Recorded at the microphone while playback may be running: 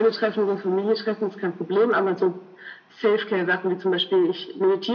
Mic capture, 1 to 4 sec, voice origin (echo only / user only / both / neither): echo only